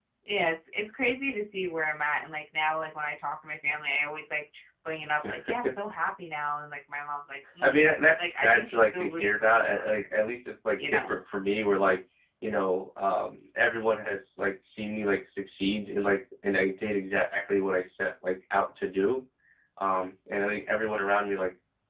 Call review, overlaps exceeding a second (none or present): present